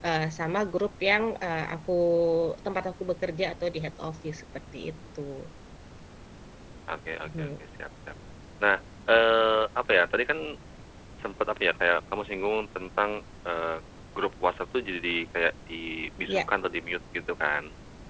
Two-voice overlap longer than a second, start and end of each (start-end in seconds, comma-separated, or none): none